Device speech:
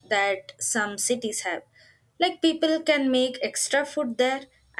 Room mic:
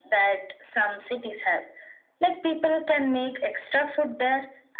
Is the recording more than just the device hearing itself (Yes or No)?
No